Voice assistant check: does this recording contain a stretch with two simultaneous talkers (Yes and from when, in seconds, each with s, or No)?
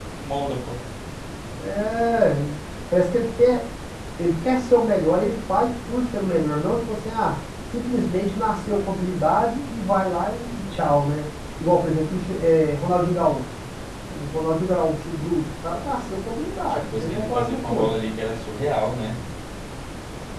Yes, from 16.7 s